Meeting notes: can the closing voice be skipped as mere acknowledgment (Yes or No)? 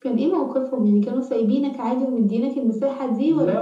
No